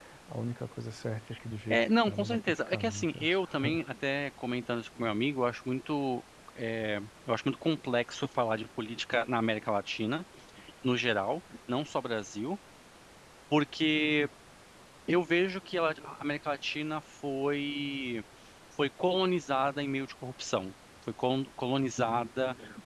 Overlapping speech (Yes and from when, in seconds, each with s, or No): Yes, from 1.7 s